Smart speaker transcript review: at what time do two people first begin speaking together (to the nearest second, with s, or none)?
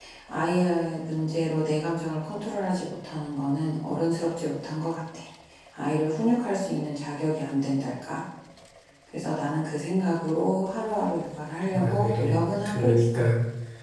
12 s